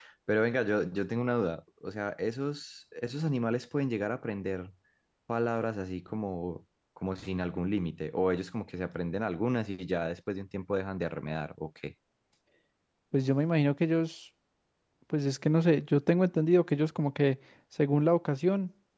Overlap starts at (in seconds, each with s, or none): none